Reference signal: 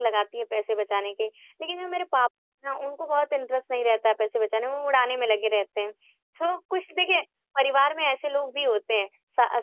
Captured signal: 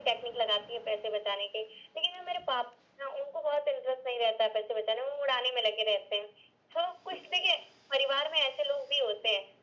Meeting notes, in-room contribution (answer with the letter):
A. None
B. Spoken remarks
A